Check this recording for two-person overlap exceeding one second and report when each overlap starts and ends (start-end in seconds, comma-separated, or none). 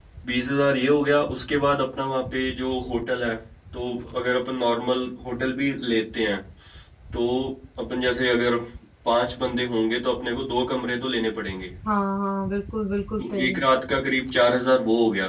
none